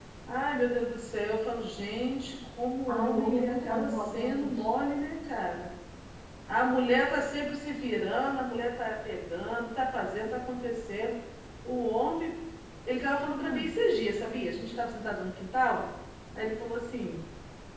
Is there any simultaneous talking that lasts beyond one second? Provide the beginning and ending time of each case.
2.9-4.5

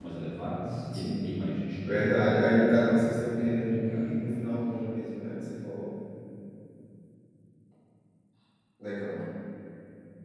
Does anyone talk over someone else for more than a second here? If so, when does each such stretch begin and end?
1.9-4.1

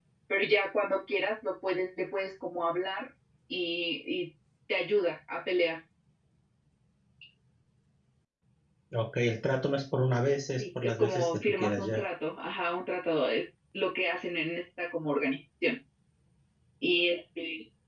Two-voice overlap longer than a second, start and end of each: 10.6-12.0

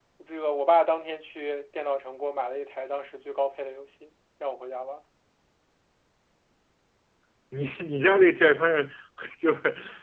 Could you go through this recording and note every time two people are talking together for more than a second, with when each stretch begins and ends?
none

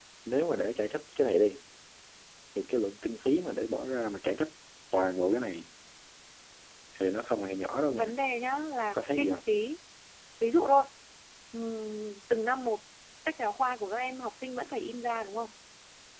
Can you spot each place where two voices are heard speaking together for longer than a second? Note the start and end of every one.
none

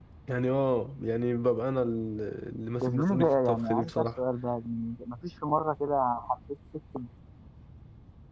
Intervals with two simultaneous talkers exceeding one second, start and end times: 2.8-4.0

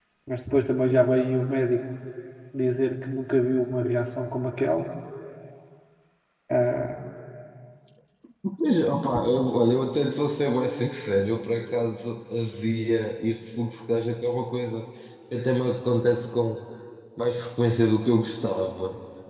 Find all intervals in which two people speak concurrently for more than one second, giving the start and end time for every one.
none

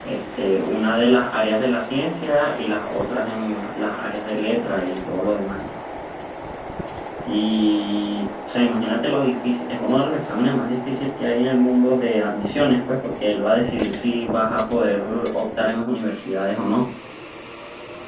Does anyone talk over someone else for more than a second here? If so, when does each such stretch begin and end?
none

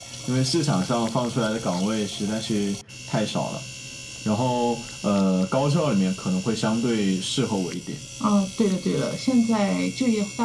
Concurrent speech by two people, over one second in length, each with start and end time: none

